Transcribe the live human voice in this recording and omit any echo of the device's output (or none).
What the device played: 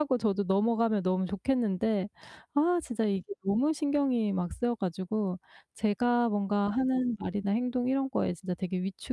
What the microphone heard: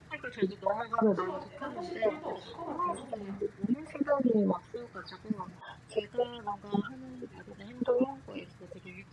굳이 뭐 대답하실 필요도 없을 것 같아요. 그냥